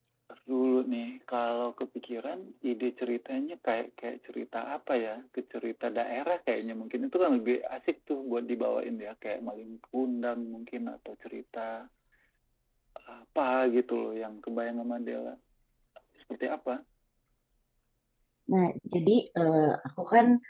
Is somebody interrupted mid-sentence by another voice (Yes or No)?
No